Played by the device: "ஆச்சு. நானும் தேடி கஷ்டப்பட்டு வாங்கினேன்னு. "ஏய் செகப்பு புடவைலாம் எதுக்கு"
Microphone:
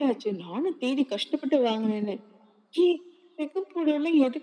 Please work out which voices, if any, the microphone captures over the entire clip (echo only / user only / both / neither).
echo only